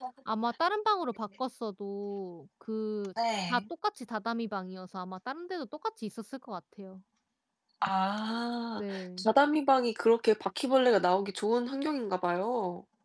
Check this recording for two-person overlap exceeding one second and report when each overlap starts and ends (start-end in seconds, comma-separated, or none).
none